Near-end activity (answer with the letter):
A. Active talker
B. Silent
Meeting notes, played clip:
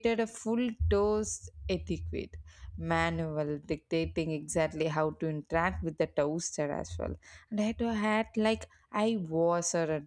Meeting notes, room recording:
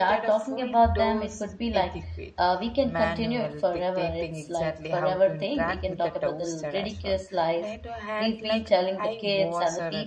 A